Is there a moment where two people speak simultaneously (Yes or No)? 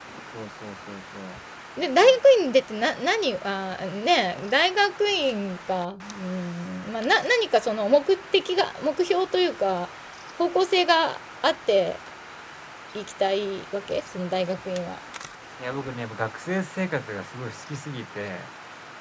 No